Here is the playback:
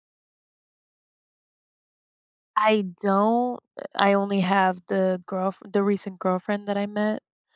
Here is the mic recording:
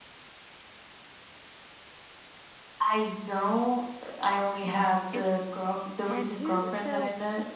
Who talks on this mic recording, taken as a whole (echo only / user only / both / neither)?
both